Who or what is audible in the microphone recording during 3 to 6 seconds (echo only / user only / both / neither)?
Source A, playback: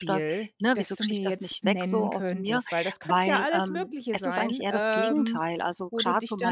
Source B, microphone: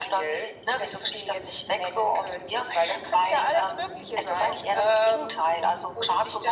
echo only